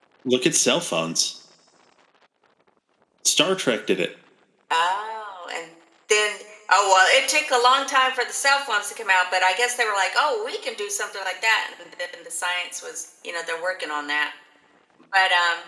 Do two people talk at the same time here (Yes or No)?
No